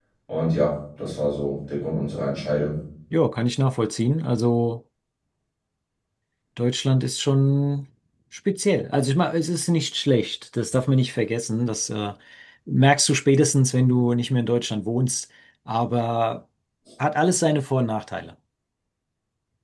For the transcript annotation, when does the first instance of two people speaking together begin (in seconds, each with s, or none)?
none